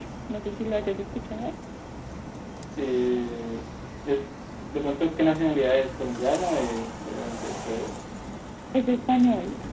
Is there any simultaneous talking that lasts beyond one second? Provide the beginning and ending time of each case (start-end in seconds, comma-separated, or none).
none